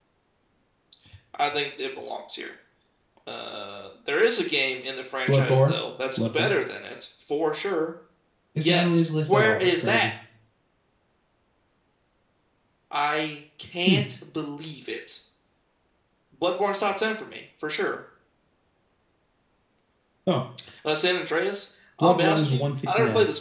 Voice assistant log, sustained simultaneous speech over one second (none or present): present